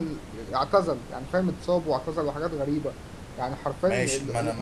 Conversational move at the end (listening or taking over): taking over